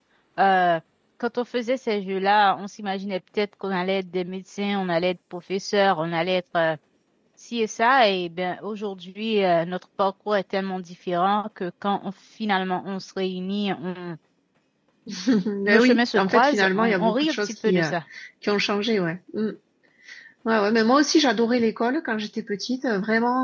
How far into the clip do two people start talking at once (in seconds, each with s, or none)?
15.7 s